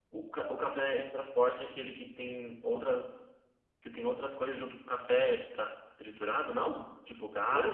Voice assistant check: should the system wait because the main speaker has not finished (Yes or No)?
No